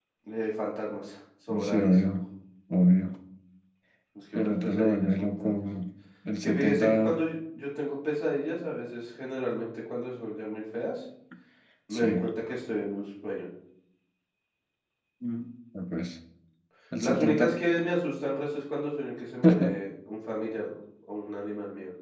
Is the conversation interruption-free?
No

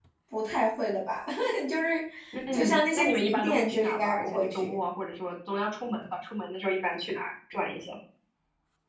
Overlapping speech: Yes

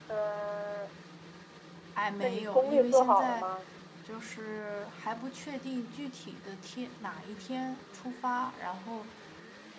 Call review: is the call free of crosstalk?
No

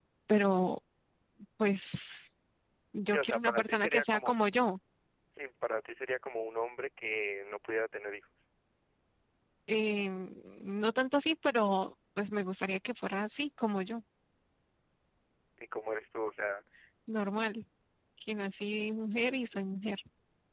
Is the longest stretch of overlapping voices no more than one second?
No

